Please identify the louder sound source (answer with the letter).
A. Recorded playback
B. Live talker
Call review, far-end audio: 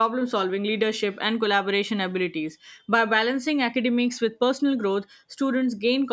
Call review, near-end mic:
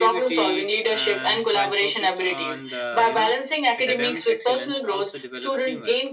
A